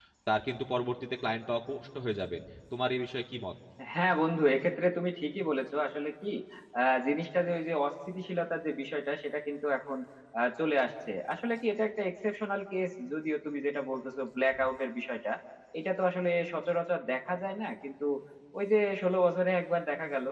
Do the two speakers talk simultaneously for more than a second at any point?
No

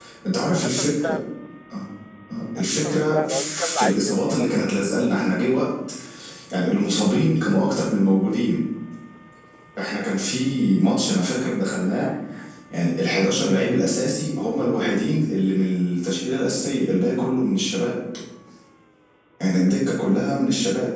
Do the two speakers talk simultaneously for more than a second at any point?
Yes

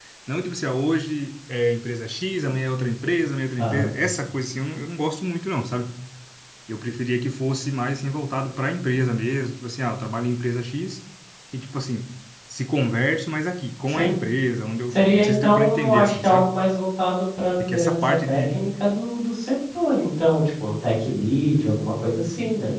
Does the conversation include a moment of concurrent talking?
Yes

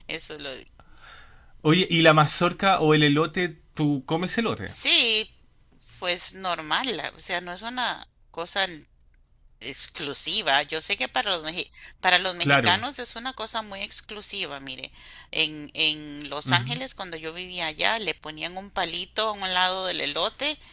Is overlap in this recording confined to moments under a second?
Yes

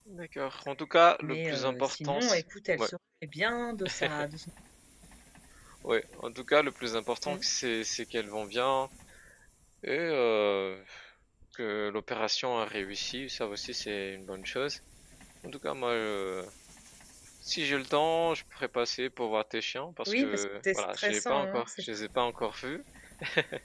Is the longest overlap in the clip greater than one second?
Yes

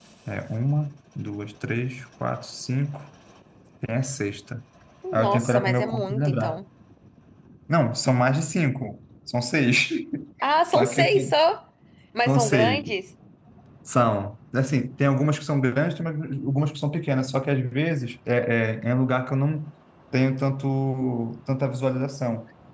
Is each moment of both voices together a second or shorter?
No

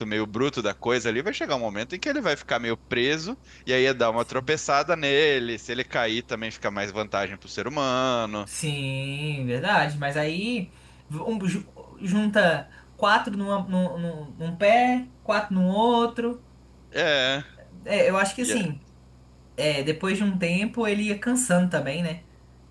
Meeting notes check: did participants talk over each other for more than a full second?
No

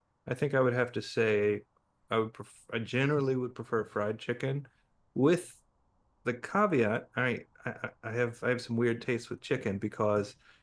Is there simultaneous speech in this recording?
No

